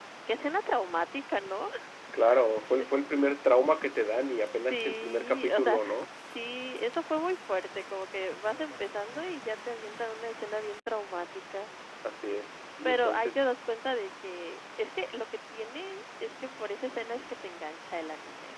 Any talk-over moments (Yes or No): Yes